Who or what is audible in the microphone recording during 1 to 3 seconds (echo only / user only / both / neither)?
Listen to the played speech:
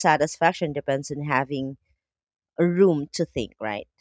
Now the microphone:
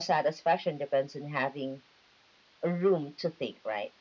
echo only